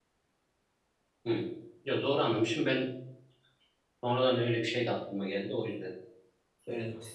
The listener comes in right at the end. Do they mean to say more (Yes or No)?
Yes